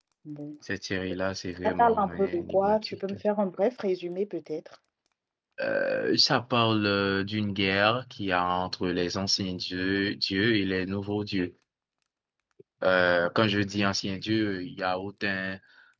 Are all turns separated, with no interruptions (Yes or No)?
No